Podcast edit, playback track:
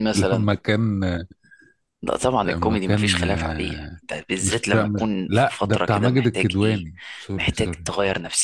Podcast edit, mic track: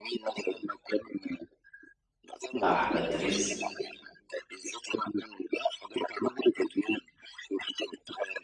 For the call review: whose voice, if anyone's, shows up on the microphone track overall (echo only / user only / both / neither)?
both